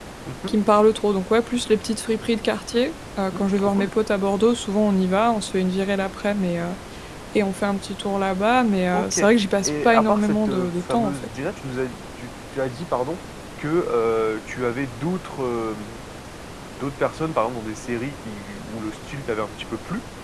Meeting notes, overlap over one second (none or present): present